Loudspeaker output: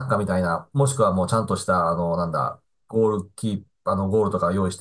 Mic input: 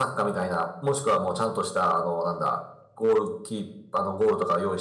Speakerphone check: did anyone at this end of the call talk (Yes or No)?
No